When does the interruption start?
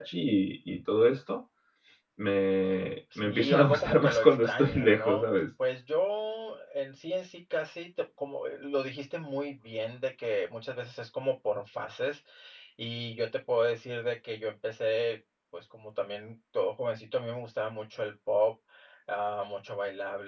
3 s

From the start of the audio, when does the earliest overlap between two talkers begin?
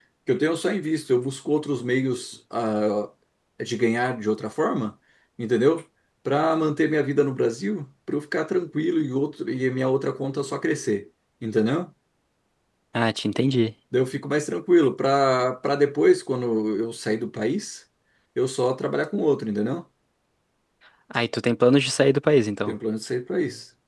none

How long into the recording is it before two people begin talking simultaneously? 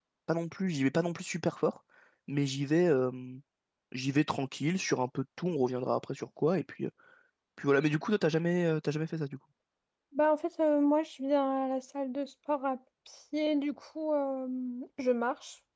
none

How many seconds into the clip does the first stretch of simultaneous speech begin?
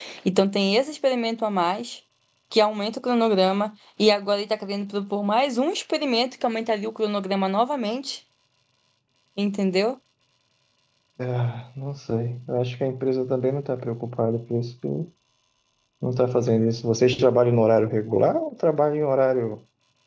none

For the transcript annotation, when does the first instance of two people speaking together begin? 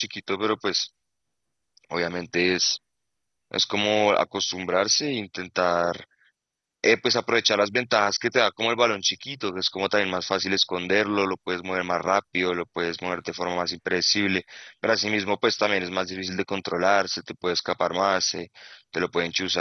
none

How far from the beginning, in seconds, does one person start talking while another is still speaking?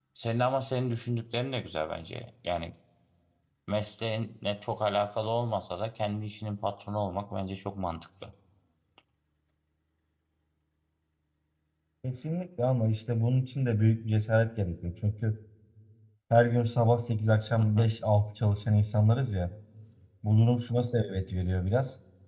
none

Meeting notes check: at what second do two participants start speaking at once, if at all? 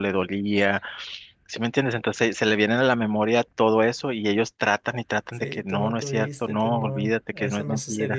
5 s

